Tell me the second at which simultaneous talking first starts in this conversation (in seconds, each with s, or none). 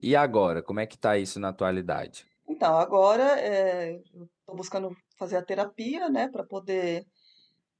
none